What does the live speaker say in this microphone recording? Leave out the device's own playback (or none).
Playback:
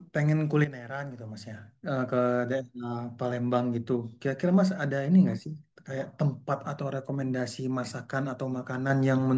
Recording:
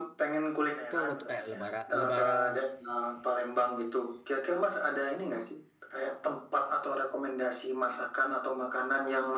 itu let- eh, lebaran lebaran